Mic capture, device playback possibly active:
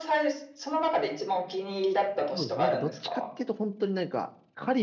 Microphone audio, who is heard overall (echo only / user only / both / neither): both